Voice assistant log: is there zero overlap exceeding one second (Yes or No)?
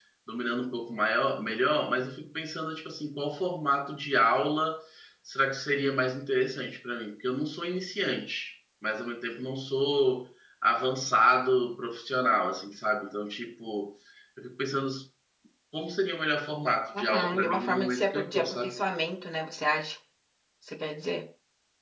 No